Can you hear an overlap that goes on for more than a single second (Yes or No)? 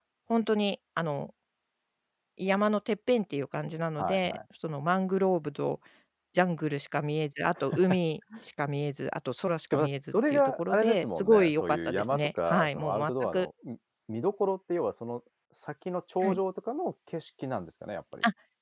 Yes